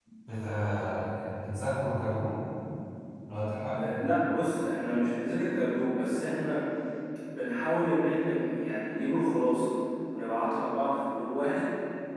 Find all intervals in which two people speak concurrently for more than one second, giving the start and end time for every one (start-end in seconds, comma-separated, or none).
none